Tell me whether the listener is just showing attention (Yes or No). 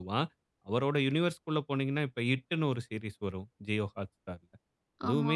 Yes